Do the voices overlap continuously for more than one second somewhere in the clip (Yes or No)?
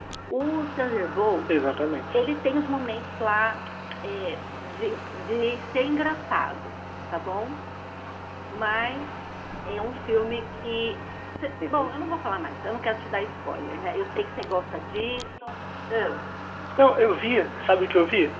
No